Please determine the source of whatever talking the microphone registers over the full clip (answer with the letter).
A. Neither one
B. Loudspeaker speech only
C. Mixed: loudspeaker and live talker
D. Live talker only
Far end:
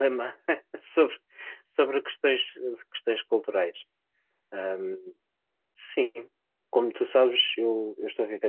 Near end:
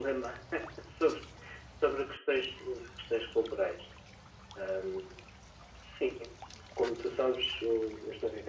B